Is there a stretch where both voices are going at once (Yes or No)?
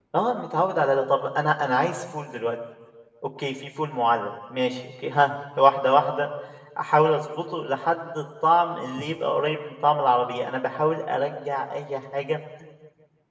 No